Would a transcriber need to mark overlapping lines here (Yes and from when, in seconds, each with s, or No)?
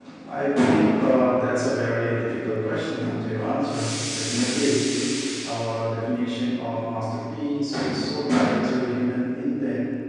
No